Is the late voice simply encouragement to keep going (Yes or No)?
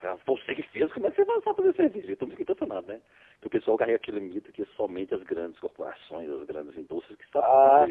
No